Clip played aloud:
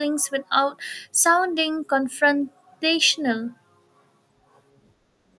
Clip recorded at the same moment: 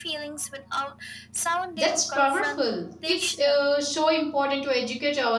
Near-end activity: present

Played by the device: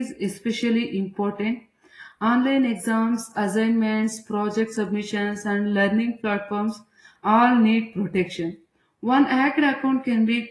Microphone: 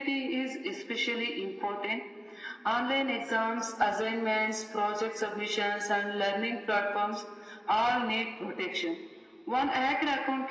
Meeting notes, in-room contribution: none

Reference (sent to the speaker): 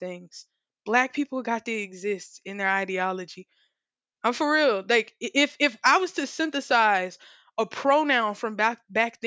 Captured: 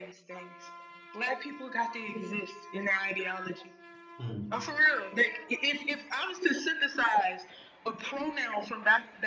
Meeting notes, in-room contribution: present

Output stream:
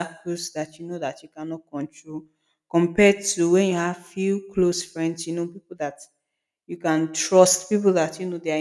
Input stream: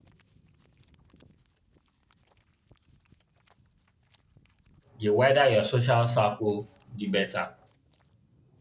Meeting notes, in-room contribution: present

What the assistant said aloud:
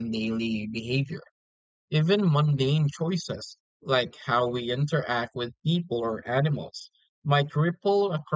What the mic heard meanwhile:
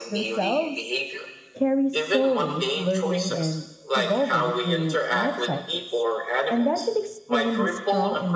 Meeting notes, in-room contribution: present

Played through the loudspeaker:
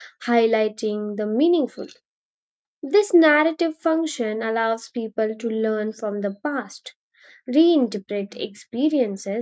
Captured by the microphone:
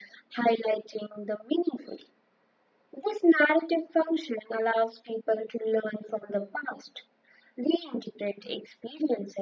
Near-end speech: none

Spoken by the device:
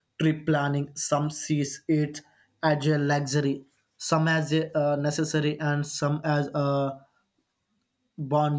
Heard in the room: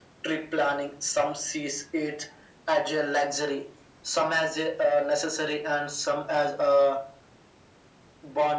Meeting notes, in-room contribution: none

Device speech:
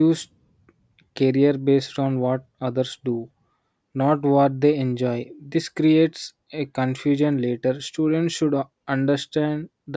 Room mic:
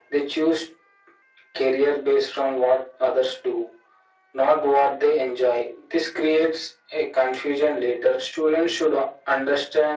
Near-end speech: none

